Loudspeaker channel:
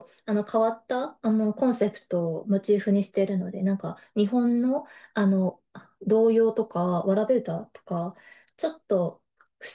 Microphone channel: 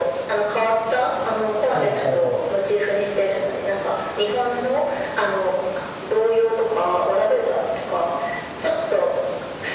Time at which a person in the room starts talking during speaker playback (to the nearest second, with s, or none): 2 s